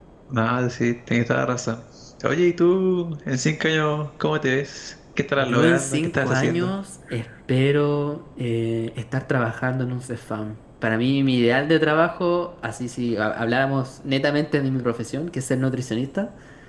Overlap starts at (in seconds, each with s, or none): 5.4 s